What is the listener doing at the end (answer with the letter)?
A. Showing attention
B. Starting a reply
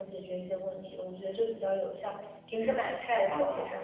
A